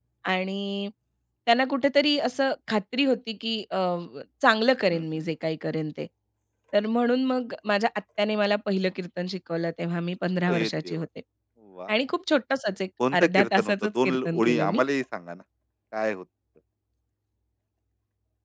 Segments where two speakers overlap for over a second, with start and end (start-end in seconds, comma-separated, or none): 13.1-14.8